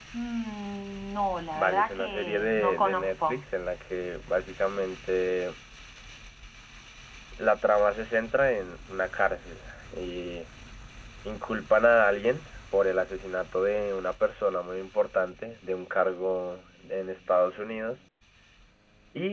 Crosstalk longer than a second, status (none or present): present